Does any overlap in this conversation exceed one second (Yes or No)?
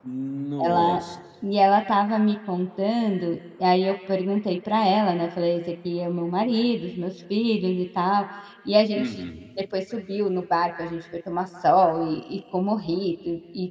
No